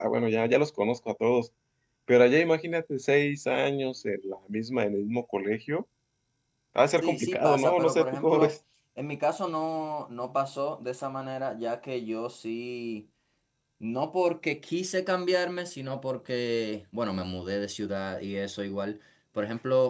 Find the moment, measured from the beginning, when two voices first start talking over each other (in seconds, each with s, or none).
7.0 s